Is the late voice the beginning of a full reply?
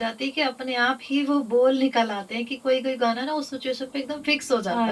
Yes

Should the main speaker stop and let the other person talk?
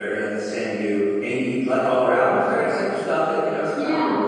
No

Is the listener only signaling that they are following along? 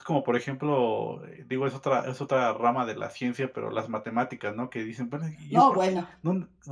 Yes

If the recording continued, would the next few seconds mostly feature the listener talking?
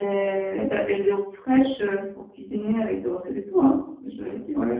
Yes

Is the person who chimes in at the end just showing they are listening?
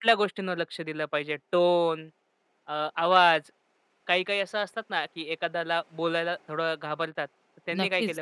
No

